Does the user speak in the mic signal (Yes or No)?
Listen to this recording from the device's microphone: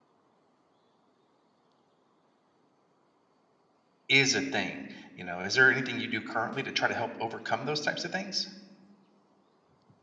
Yes